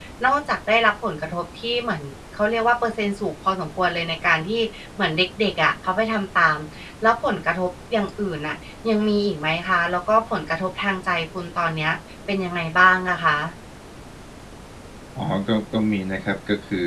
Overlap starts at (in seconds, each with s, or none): none